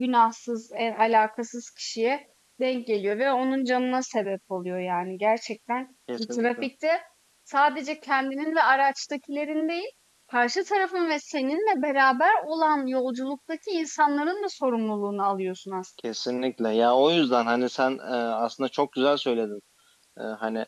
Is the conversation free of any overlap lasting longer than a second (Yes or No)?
Yes